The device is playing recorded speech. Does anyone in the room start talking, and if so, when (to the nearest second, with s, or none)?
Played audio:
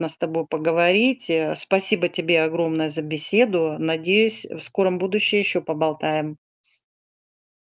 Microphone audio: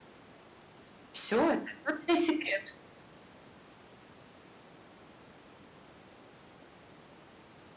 1 s